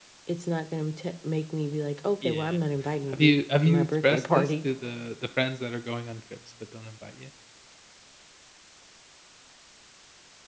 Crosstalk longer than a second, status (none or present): present